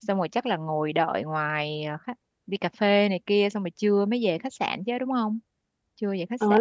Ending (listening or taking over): taking over